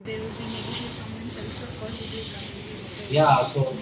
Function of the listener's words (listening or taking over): taking over